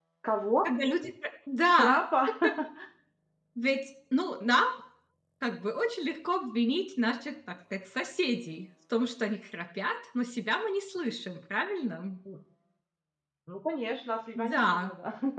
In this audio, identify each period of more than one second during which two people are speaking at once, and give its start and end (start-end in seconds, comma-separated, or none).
none